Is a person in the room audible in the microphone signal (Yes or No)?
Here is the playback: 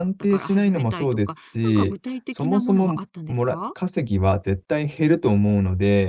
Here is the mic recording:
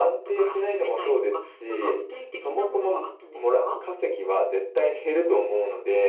No